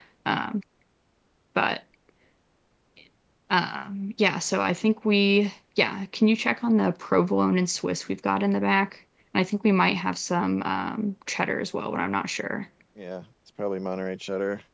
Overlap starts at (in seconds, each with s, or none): none